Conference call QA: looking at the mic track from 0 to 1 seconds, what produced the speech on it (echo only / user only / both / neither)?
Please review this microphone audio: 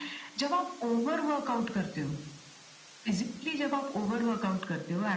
echo only